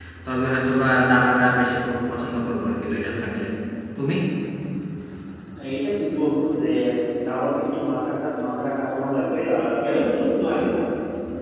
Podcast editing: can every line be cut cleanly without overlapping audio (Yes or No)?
Yes